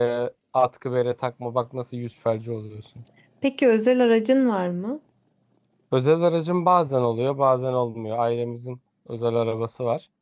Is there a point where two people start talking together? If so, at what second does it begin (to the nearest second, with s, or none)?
none